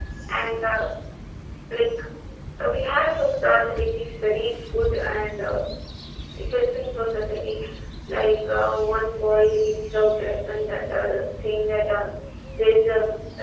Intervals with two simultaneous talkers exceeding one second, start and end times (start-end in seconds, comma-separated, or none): none